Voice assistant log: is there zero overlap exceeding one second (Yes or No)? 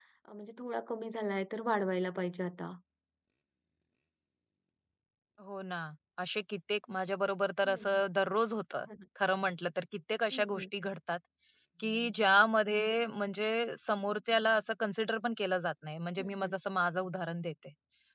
Yes